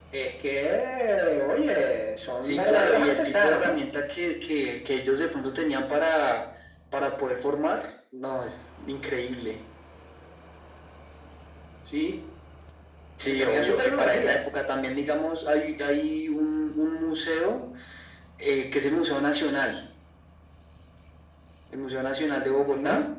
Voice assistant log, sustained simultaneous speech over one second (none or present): present